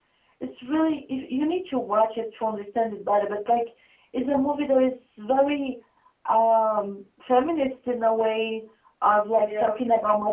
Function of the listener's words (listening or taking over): listening